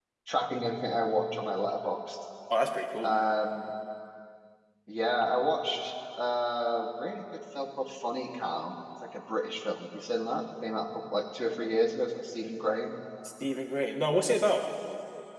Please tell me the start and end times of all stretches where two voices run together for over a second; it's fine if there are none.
none

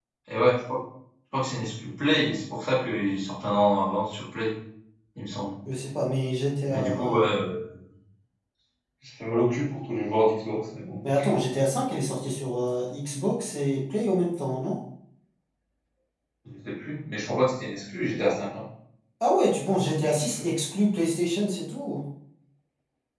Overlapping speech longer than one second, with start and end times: none

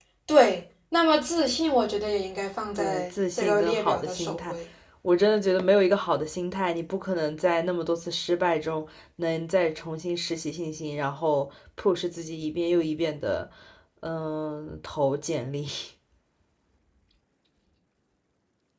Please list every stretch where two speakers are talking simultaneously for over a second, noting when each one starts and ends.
2.8-4.6

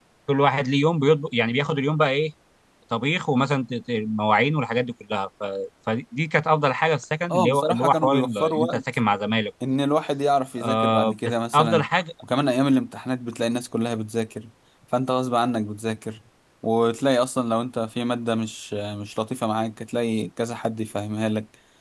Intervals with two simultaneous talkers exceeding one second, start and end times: 7.3-8.8, 10.6-11.9

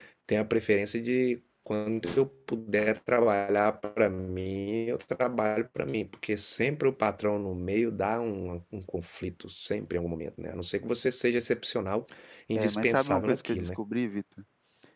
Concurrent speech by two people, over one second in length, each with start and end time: 12.6-13.8

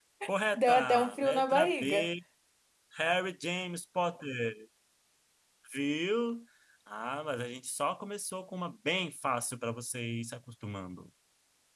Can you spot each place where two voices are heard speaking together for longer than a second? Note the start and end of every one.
0.6-2.1

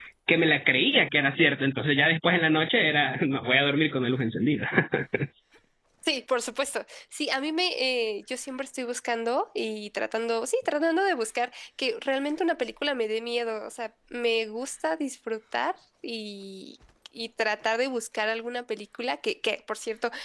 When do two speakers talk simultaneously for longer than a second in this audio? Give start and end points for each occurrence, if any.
none

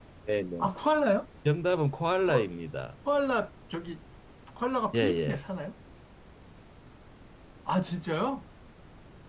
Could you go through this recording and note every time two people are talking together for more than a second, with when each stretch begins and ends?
none

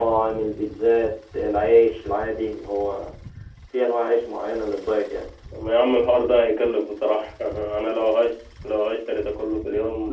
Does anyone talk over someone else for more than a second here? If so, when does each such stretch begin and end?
none

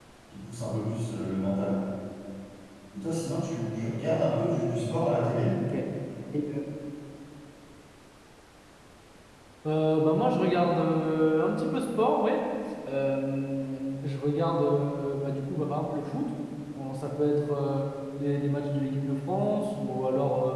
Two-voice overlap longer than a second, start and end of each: none

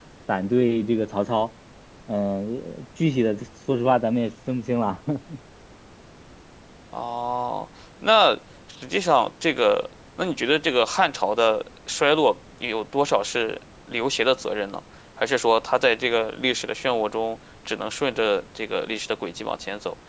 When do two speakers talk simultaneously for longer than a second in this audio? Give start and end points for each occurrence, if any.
none

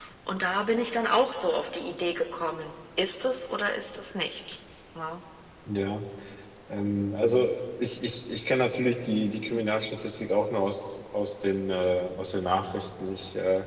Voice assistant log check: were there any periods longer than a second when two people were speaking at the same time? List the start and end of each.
none

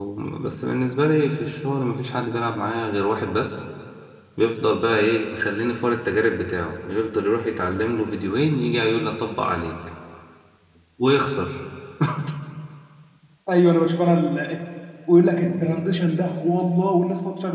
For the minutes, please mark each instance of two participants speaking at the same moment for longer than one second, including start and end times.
none

